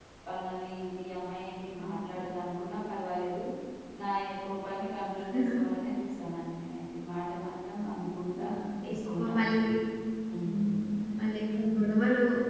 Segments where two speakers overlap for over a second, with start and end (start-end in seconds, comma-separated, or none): none